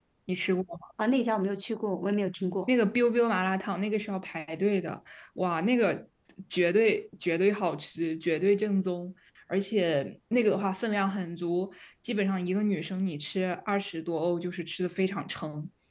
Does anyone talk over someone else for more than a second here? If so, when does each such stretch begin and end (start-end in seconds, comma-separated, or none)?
none